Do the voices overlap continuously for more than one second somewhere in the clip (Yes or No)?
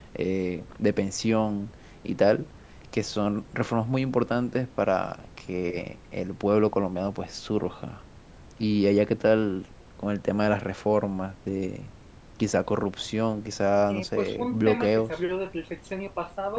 Yes